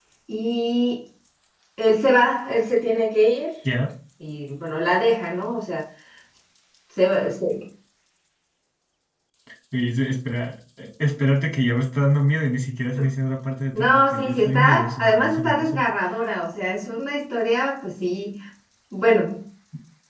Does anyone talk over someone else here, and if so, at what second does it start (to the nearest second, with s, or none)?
14 s